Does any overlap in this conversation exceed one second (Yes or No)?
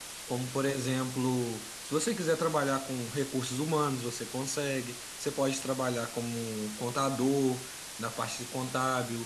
No